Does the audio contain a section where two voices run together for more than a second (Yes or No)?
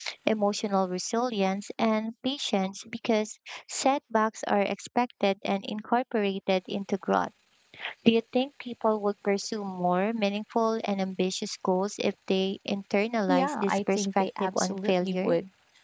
Yes